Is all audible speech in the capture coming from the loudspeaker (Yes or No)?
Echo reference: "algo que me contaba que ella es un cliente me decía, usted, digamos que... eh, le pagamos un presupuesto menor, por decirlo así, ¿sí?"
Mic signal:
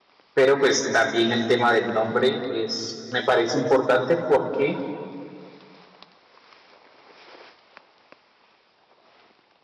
No